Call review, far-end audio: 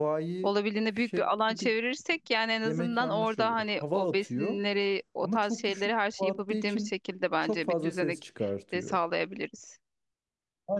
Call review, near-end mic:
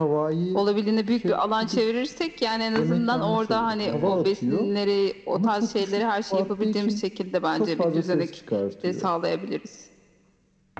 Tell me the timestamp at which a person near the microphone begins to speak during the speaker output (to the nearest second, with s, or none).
4 s